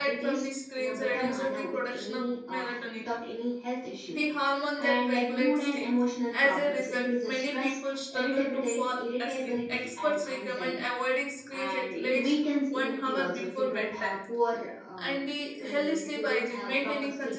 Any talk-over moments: Yes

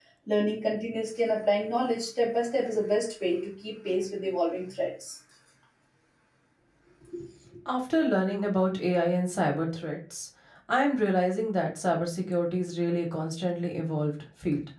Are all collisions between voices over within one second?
Yes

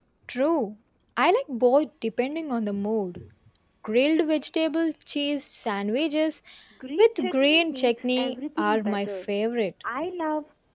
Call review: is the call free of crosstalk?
No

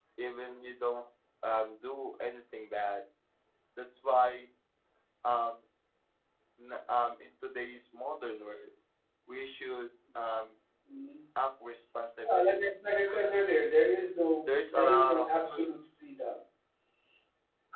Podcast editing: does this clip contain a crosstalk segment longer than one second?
Yes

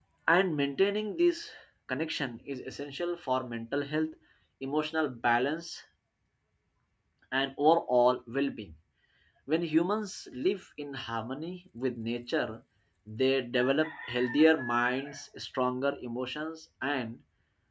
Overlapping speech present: No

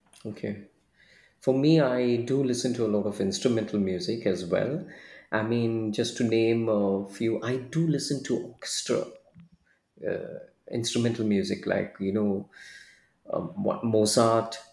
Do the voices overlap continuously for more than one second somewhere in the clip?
No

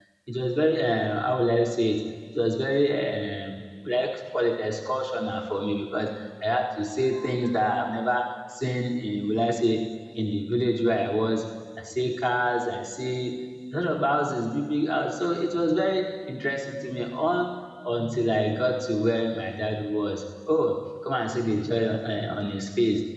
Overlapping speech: No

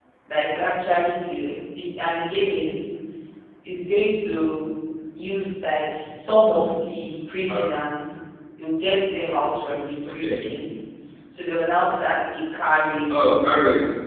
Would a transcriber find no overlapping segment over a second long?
Yes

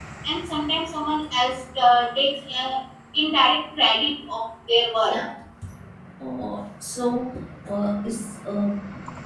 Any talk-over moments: No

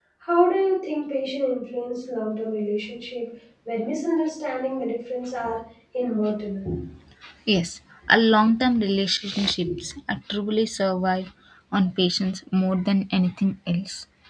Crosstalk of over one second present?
No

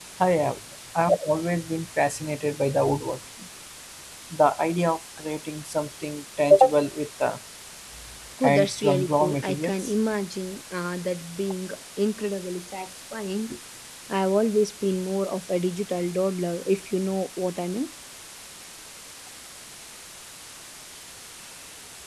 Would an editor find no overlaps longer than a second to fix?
No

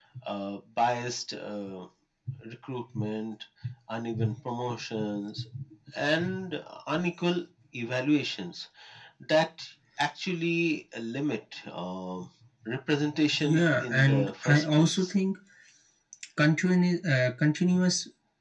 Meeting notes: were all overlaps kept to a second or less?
No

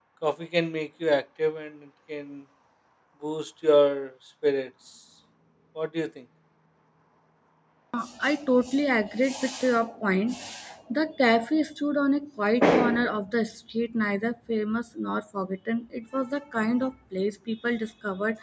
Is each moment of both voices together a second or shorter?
Yes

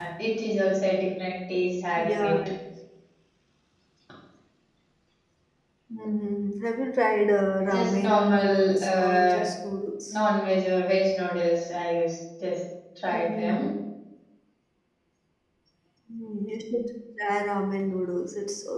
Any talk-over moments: Yes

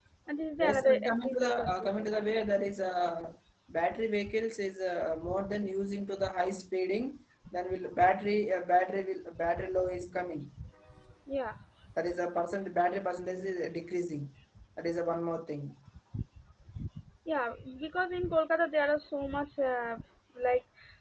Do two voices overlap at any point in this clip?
Yes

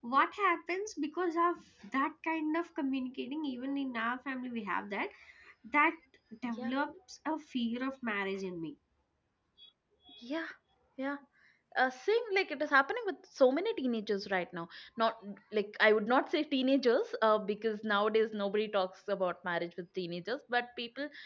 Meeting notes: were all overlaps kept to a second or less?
Yes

